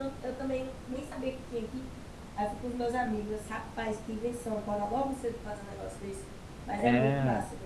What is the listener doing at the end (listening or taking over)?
taking over